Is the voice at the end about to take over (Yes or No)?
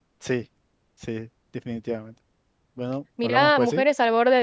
Yes